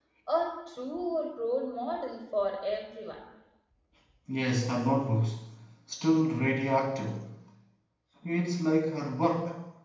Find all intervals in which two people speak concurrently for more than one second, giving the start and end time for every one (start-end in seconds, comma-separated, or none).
none